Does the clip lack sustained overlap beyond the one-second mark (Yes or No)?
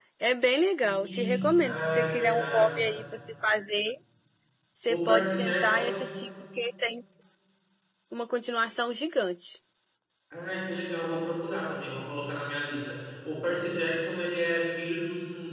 No